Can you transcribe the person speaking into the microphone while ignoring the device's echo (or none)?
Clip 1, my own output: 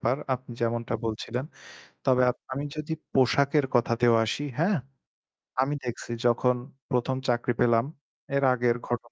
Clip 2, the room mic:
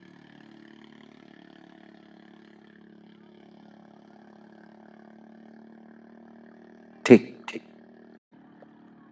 ঠিক, ঠিক।